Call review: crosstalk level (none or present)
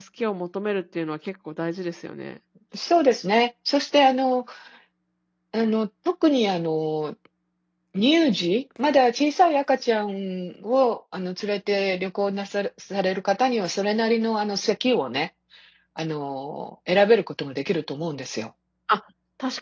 none